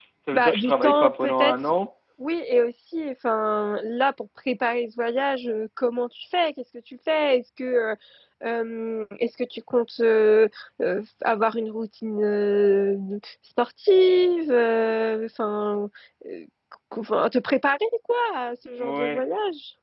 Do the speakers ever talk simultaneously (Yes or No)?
Yes